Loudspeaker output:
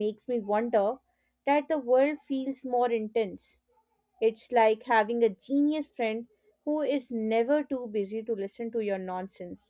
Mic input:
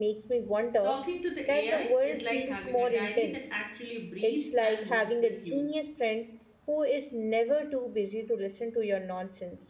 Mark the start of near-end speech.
1 s

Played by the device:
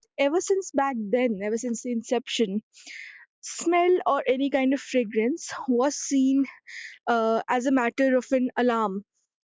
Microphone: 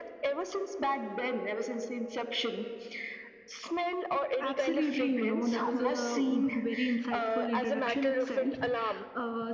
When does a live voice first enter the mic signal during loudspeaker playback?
4 s

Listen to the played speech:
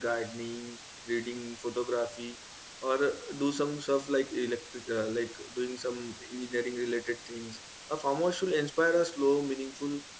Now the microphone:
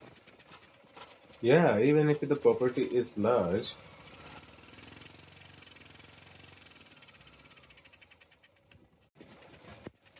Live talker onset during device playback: 1 s

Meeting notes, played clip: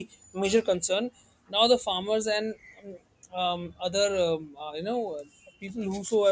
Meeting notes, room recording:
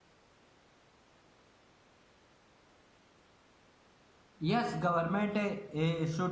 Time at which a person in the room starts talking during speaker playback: 4 s

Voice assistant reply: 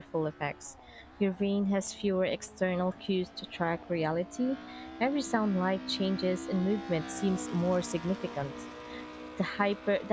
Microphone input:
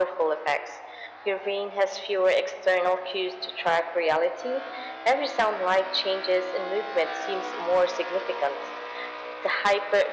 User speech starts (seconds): none

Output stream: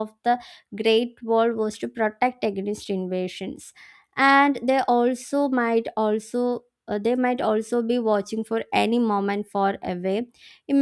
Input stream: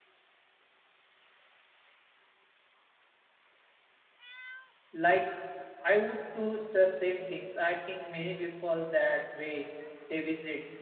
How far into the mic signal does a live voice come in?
5 s

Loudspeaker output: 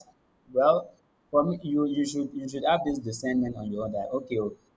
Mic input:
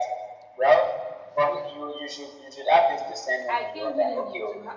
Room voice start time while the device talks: 3 s

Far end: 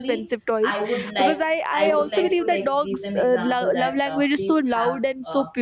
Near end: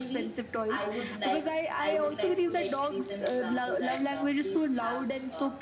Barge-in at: none

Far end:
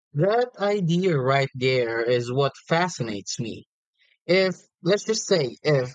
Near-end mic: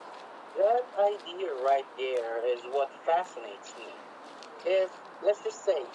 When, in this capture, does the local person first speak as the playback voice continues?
none

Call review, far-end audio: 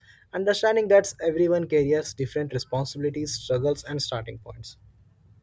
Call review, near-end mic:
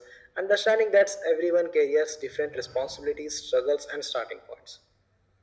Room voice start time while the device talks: none

